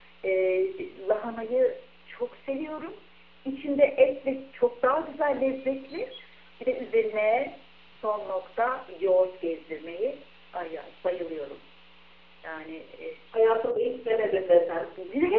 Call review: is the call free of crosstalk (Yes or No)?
Yes